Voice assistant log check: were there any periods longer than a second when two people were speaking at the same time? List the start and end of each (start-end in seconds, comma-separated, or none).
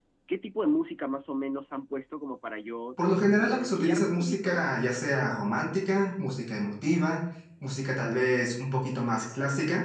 3.4-4.7